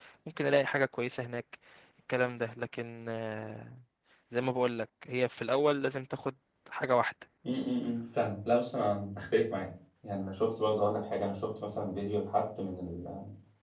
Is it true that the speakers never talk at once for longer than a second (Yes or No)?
Yes